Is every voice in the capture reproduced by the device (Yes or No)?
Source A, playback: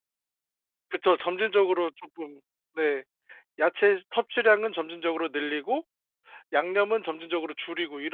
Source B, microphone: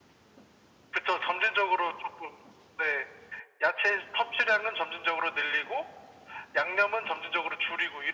Yes